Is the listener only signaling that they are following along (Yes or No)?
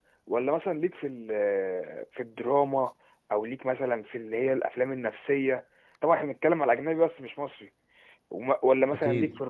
Yes